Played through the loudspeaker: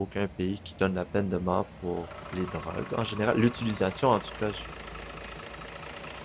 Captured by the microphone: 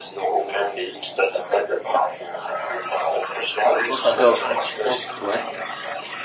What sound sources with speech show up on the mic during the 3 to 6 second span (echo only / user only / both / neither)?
both